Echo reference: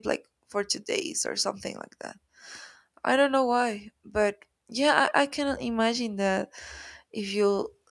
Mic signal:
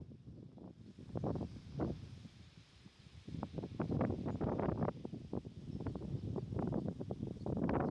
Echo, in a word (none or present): none